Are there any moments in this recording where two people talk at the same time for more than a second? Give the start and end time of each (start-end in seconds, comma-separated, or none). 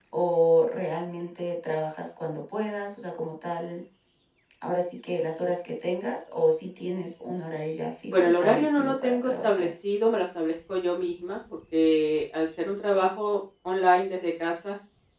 8.1-9.7